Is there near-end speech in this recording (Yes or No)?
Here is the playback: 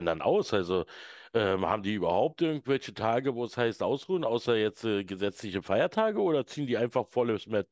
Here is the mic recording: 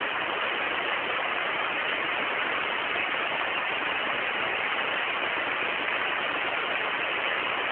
No